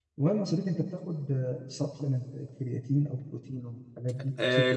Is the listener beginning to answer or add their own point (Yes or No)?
Yes